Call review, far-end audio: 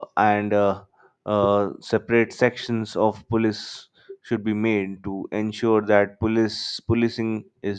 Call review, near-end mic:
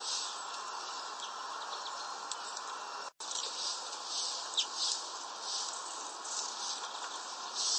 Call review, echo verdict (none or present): none